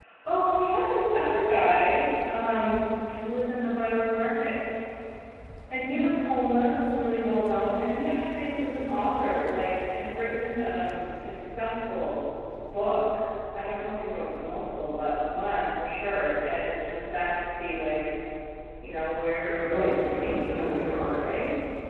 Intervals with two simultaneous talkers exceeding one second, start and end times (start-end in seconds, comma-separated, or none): 19.4-21.4